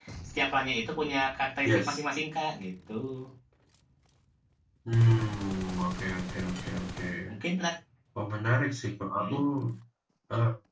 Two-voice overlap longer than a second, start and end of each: none

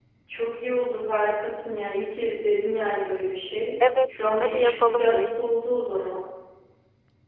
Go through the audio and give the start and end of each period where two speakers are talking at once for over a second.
4.1-5.4

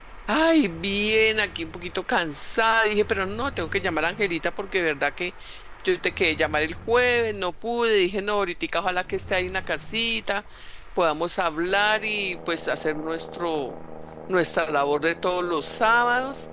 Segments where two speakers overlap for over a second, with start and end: none

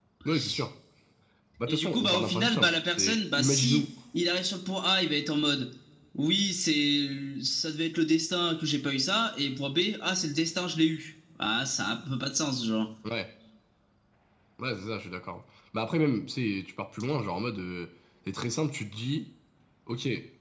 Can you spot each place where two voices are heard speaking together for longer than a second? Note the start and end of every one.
1.7-3.9

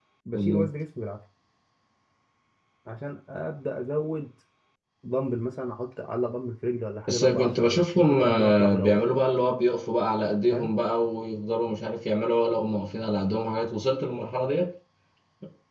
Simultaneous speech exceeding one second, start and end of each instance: 7.1-9.0

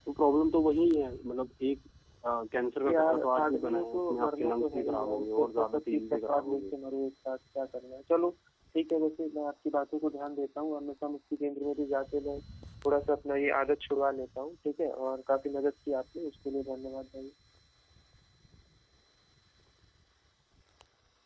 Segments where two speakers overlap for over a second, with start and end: 2.9-6.7

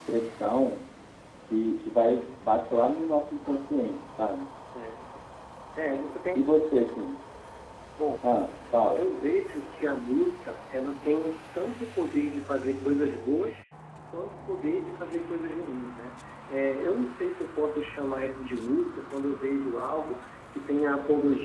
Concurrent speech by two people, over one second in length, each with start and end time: none

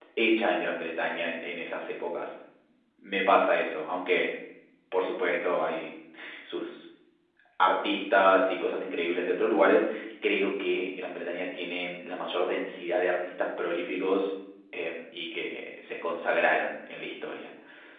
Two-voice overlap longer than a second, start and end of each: none

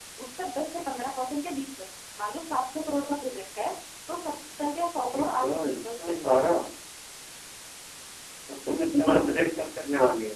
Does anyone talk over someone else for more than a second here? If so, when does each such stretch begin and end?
5.1-6.3

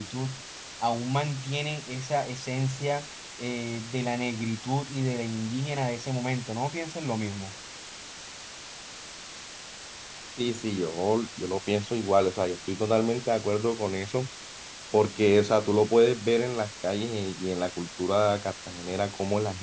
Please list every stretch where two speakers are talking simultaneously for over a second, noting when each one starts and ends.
none

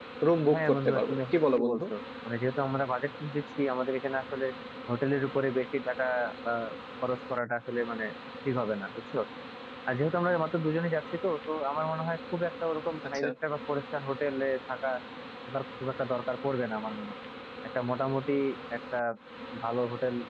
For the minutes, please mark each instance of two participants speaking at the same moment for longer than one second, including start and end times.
0.5-1.8

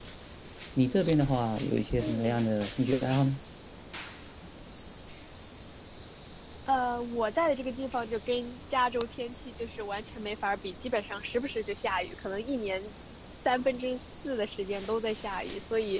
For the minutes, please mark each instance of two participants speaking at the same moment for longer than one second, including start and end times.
none

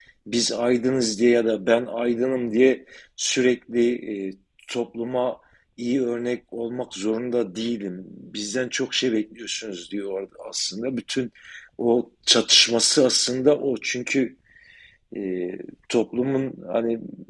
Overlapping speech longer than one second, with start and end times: none

